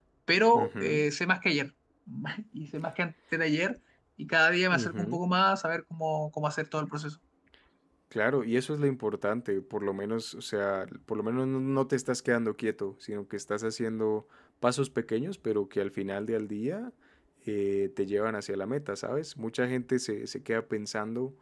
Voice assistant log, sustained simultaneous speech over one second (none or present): none